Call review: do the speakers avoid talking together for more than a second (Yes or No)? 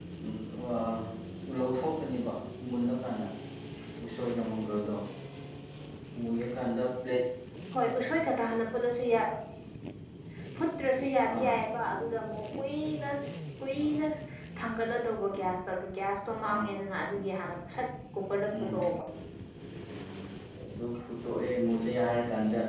Yes